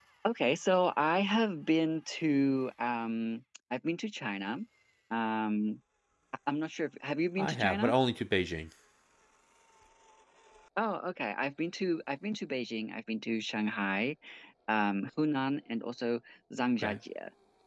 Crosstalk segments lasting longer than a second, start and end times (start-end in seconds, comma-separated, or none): none